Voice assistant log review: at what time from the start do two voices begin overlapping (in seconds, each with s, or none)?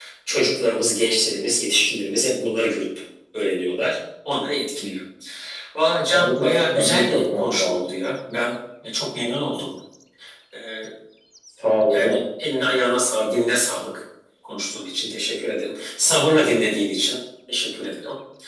6.1 s